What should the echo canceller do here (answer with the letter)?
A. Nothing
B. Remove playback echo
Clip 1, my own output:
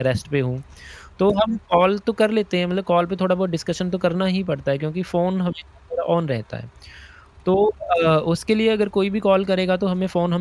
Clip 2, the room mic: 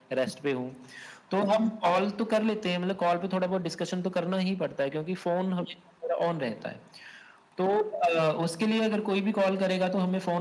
B